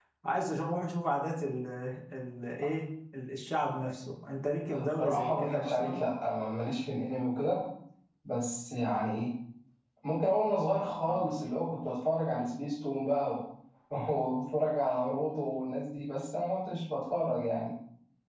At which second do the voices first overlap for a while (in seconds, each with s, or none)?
4.7 s